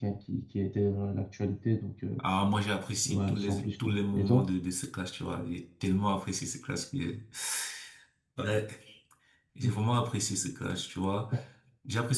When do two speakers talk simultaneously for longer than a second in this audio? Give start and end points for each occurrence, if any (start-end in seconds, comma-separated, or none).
3.1-4.4